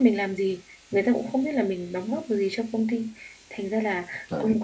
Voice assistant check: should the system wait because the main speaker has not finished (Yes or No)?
Yes